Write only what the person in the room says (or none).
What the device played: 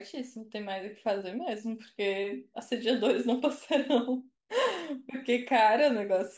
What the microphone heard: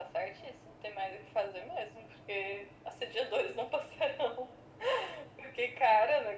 none